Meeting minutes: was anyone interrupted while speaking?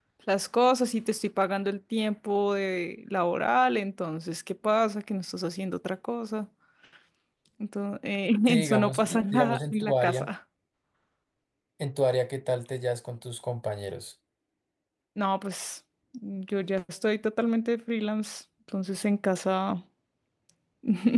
Yes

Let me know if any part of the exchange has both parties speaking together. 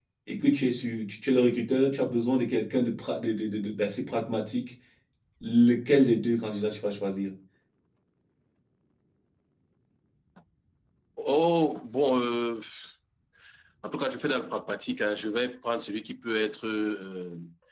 No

